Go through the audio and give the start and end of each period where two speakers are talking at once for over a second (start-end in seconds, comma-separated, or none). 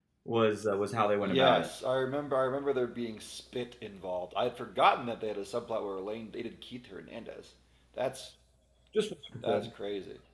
none